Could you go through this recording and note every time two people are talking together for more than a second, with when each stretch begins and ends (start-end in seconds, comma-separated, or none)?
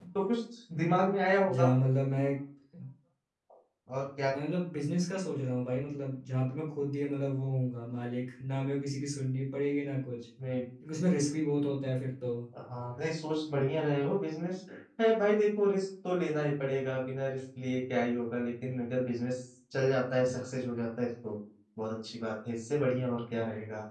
none